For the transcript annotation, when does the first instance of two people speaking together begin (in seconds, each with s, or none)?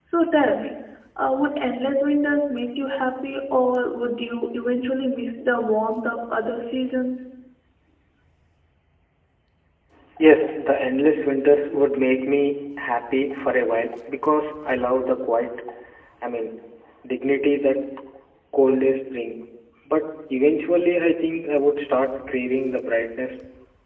none